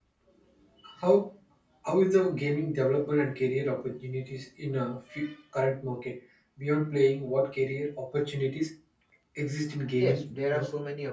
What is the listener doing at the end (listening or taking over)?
taking over